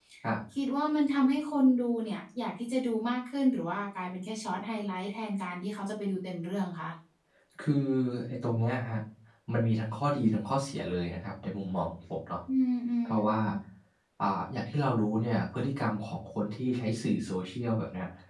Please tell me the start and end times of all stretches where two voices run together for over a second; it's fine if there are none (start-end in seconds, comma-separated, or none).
none